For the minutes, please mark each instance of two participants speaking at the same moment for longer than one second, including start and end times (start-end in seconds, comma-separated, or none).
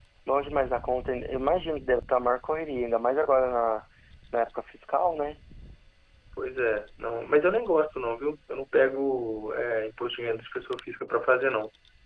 none